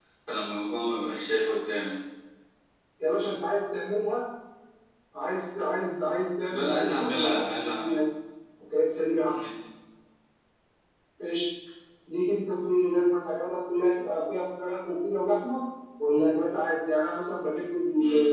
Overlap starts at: 7 s

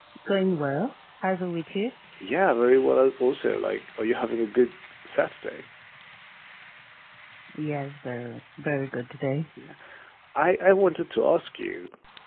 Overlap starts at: none

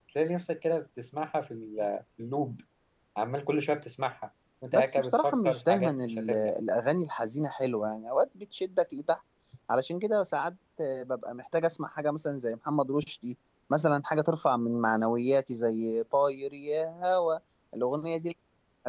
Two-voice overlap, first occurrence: 5 s

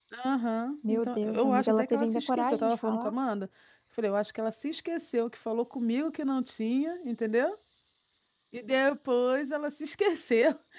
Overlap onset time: 1 s

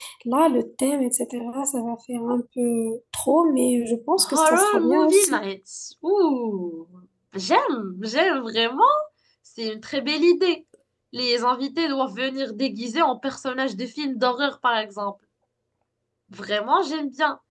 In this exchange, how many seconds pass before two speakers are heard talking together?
4 s

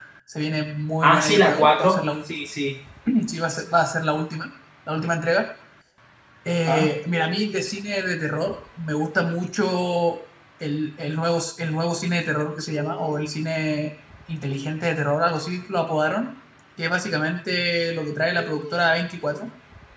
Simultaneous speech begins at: 1 s

